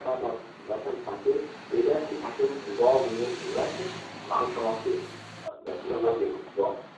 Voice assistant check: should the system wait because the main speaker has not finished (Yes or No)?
Yes